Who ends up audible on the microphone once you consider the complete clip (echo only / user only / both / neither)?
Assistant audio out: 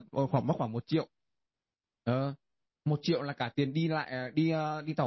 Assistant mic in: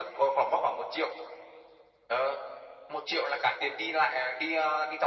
echo only